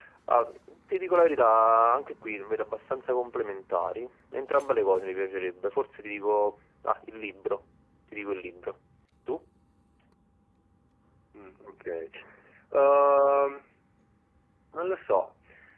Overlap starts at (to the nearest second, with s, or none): none